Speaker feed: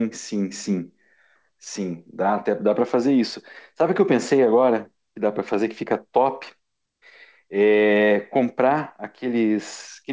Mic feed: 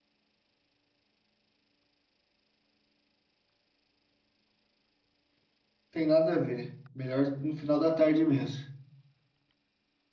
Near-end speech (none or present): present